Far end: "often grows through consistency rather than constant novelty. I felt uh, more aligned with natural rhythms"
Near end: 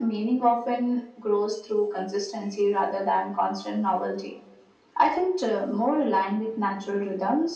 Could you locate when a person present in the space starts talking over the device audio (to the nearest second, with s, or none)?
none